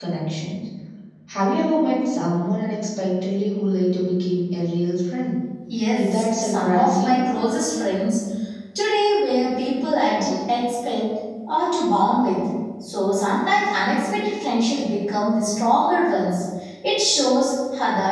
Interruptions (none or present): present